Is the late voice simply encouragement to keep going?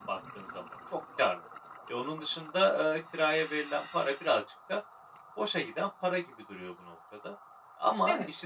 Yes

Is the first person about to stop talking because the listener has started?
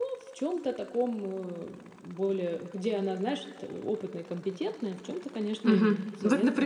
Yes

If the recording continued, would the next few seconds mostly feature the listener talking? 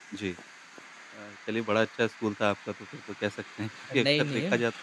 No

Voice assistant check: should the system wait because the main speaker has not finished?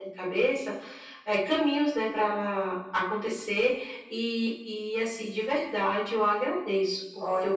Yes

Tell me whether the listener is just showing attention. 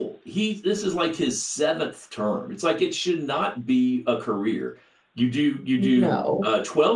Yes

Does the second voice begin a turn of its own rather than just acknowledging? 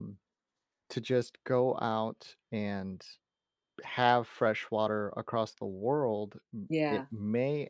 No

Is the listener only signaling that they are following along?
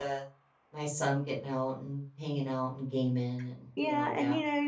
No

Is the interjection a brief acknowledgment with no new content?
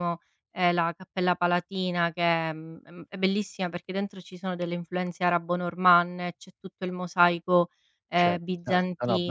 No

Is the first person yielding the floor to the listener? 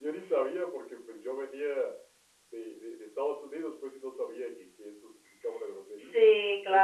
Yes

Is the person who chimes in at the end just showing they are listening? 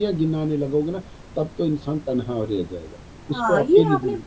No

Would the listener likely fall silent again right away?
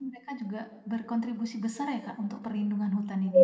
No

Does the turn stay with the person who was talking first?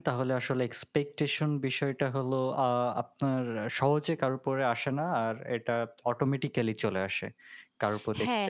No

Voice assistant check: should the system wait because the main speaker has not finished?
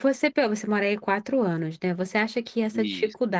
Yes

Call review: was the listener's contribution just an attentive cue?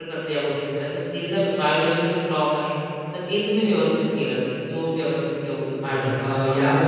No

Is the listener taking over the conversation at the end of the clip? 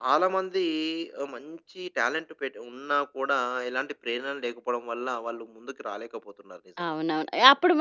Yes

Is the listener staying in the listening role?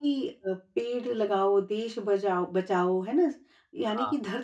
Yes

